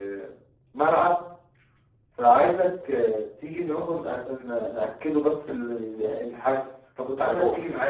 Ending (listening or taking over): listening